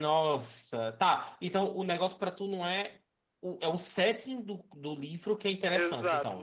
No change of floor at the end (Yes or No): No